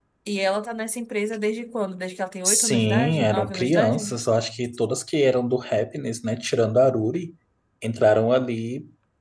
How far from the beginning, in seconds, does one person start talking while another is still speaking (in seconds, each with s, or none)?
2.4 s